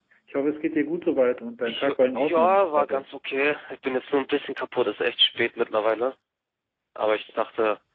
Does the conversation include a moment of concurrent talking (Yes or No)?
Yes